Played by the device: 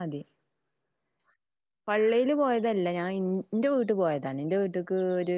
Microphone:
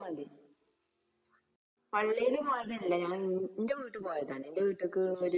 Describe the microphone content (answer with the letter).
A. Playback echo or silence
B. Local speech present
A